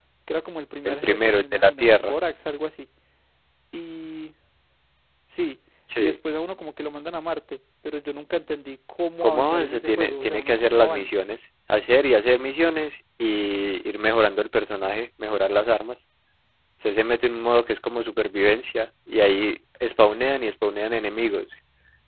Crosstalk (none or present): present